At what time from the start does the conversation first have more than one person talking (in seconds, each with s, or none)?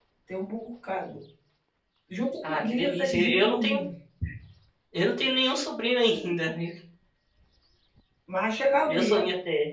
2.4 s